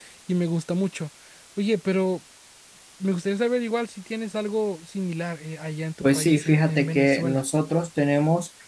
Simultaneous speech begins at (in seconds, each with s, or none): 6.0 s